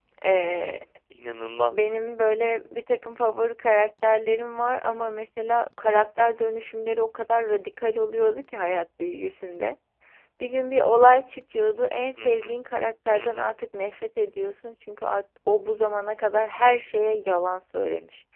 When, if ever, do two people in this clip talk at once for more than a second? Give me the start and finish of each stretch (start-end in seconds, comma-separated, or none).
none